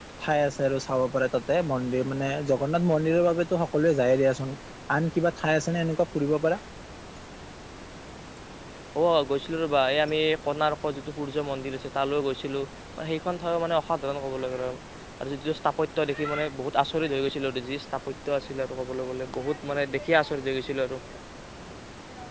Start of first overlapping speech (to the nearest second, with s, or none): none